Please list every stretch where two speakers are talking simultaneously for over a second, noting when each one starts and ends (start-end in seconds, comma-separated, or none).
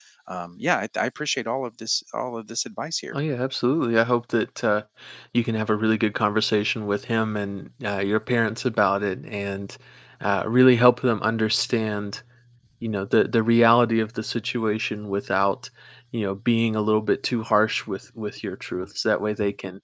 none